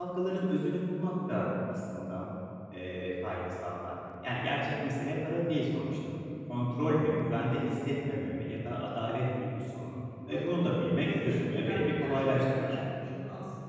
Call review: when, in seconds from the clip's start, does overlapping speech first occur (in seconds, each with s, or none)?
10.3 s